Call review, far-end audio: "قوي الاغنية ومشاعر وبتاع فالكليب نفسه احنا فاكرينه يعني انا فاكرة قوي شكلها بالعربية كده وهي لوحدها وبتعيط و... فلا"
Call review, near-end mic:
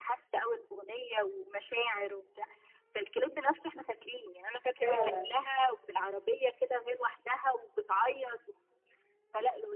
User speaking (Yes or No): Yes